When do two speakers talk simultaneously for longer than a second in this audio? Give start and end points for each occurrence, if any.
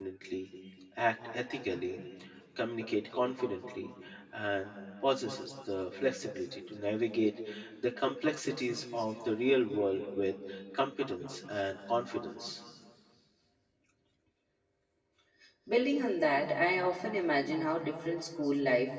none

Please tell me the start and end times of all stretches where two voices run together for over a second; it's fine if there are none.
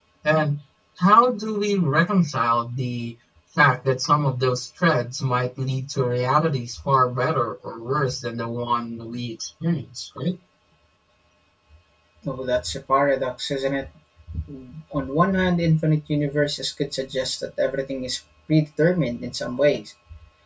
none

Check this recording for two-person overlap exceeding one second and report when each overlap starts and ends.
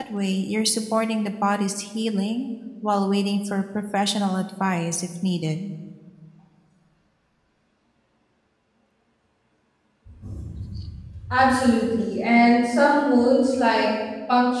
none

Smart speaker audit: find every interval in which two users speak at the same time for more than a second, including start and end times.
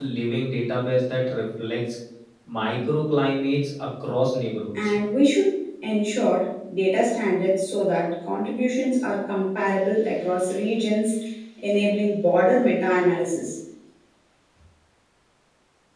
none

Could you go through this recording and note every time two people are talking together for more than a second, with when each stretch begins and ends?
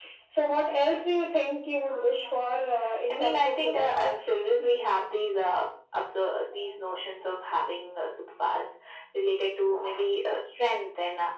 3.1-4.3

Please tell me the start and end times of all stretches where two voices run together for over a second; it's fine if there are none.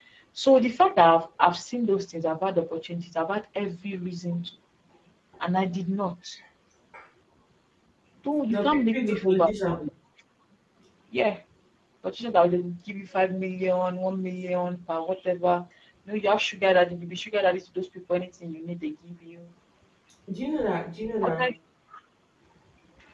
8.5-9.8

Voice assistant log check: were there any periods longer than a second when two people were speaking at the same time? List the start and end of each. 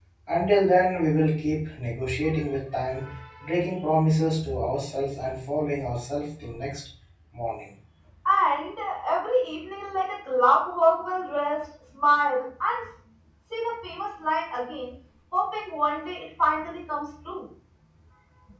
none

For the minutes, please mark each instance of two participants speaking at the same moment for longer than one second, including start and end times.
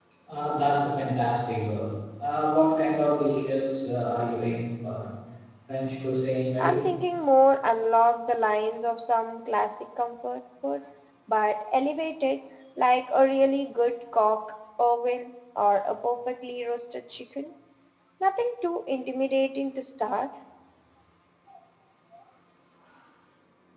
none

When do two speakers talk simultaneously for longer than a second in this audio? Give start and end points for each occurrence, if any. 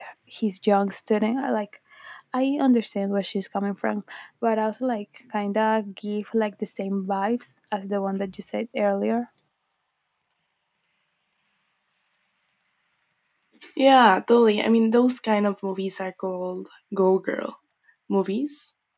none

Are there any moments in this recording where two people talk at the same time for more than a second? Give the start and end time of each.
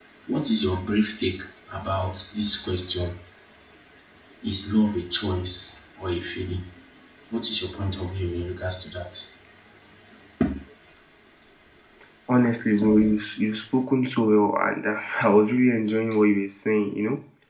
none

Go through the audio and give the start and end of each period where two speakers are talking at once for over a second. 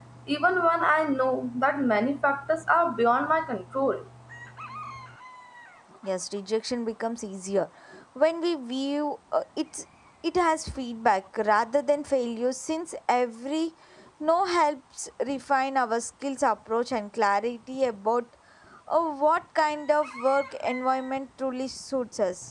none

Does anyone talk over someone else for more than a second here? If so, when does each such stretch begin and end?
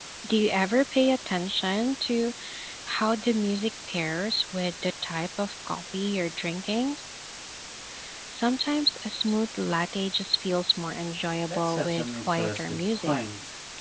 11.5-13.1

